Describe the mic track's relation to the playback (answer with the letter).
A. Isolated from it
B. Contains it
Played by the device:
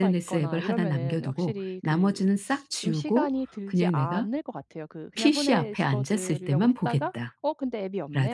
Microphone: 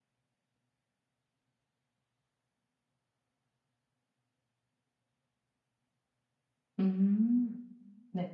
A